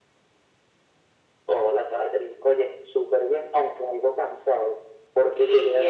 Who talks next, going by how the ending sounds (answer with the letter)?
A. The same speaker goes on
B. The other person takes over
A